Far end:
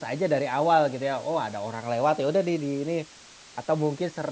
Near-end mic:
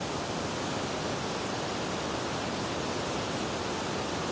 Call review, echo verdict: none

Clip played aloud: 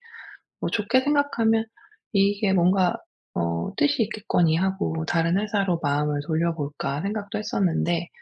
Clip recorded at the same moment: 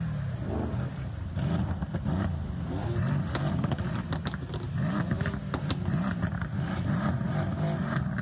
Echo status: none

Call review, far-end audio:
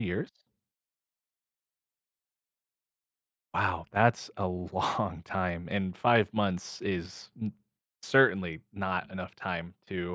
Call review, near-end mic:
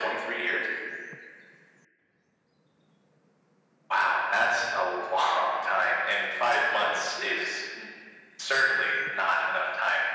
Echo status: present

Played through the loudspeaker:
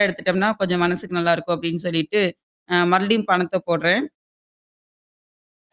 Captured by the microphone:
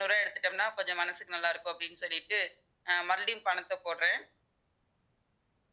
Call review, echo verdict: present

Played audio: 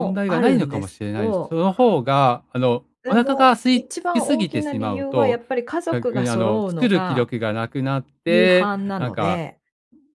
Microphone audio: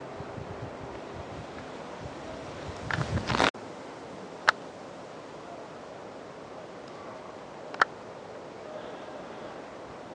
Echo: none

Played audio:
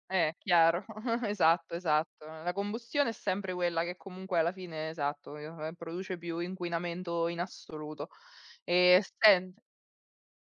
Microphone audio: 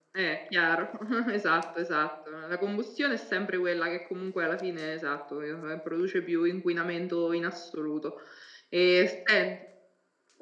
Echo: present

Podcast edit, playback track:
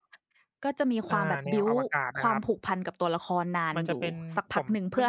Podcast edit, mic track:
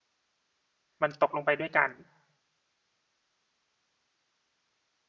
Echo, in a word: none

